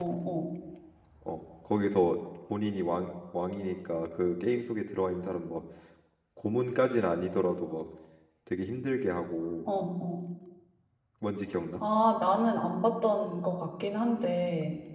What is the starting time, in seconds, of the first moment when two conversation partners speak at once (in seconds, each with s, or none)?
none